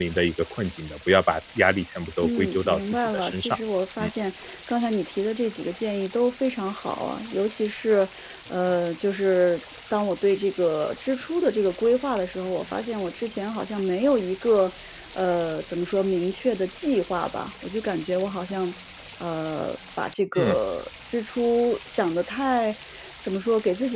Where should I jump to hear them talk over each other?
2.2 s

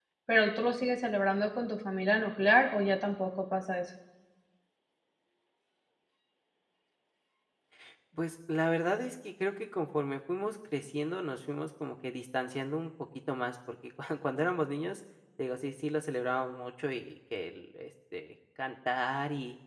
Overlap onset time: none

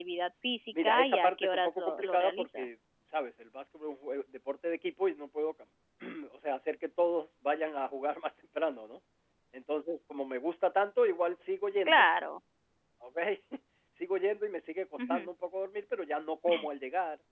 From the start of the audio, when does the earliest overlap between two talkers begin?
0.7 s

